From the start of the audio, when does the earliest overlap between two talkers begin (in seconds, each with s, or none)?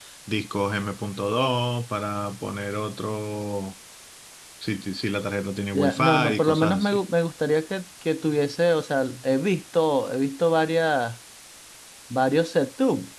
5.7 s